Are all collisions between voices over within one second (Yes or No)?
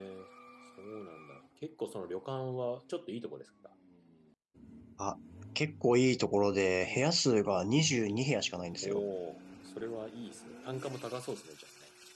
Yes